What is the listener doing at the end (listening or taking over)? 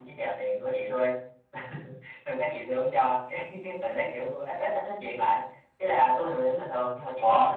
listening